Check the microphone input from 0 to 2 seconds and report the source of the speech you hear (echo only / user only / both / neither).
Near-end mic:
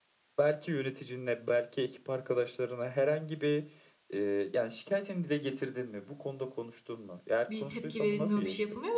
echo only